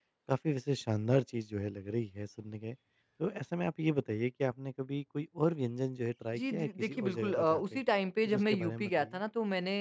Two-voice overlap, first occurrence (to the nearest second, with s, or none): 6 s